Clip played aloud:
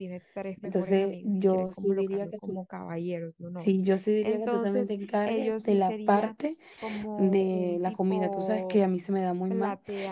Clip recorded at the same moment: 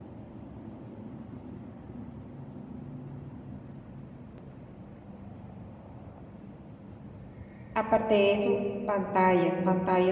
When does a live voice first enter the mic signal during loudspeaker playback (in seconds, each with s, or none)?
7.7 s